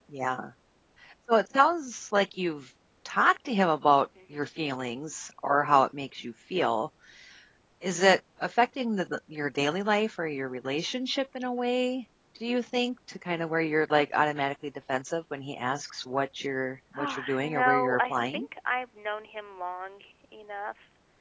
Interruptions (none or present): present